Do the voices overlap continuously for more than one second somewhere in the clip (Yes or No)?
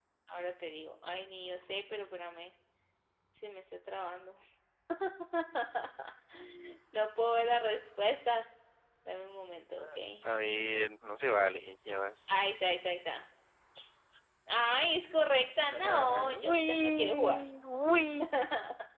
Yes